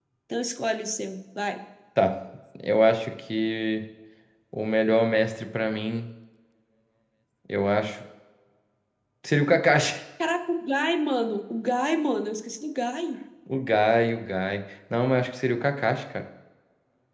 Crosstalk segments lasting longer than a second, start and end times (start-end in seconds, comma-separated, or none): none